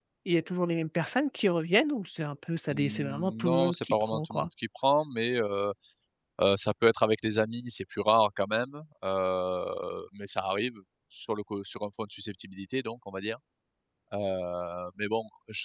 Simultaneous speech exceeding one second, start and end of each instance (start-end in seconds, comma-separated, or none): 2.7-4.5